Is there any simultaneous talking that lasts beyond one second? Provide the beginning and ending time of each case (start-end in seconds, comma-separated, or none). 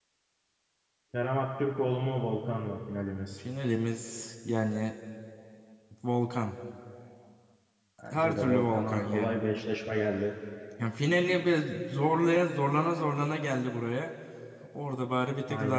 8.1-9.3